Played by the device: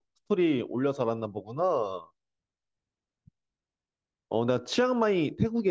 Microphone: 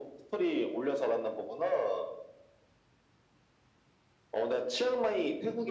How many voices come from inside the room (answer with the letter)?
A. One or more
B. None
B